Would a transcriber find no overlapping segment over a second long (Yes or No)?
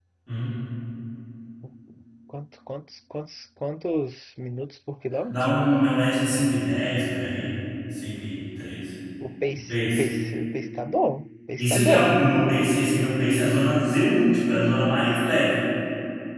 Yes